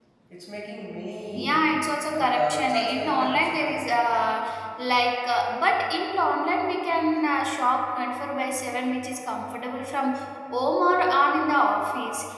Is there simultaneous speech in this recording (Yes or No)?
Yes